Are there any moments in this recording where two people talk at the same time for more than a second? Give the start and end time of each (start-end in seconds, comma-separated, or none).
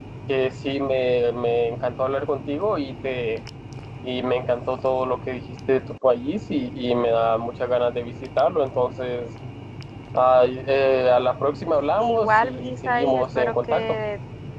12.1-13.8